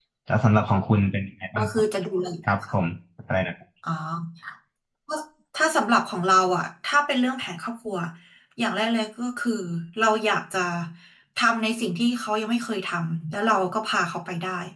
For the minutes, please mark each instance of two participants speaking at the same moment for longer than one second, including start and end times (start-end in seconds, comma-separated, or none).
none